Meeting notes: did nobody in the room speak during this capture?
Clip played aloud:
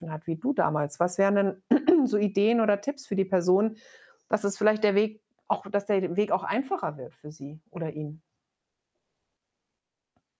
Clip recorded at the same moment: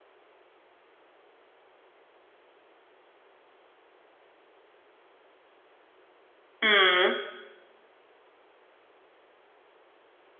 No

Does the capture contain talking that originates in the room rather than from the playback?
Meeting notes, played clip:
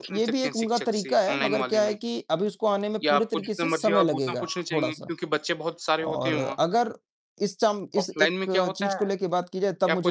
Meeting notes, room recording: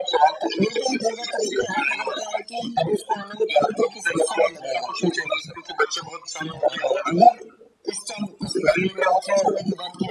No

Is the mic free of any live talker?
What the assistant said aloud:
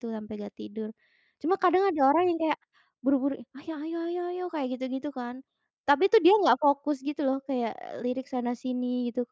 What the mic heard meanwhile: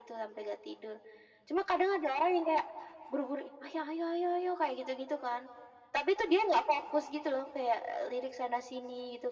Yes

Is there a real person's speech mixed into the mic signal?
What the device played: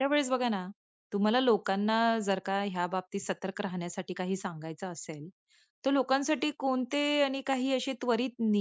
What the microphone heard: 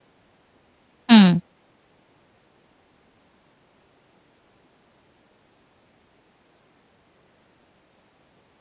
Yes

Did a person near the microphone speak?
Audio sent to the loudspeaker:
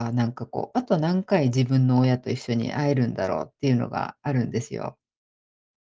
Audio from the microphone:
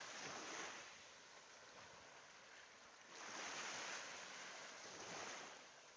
No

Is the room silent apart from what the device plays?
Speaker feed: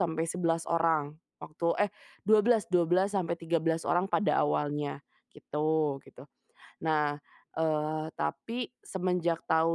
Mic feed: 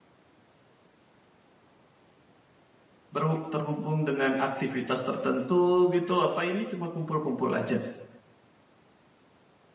No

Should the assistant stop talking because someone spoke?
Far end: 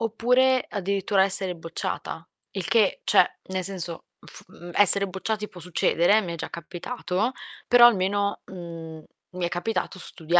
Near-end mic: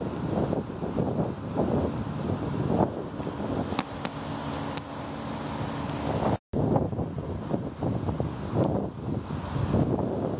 No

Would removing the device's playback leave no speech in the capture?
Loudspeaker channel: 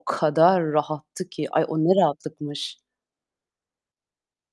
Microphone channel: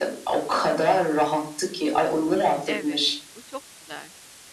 No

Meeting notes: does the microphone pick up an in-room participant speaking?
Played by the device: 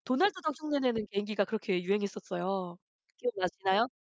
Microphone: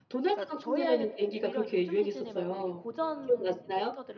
Yes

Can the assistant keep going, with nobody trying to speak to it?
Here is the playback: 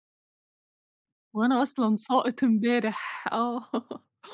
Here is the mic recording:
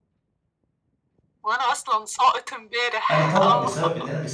No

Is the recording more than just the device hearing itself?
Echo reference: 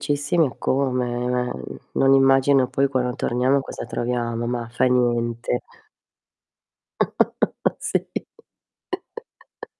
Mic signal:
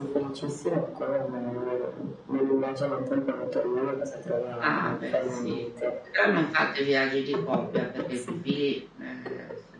Yes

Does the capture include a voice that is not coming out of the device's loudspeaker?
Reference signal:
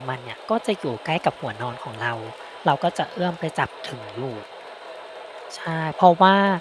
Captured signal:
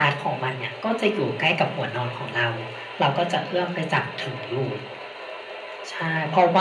No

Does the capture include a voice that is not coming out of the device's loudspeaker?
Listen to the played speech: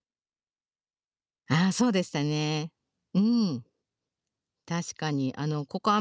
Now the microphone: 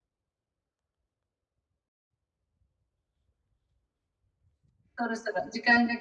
Yes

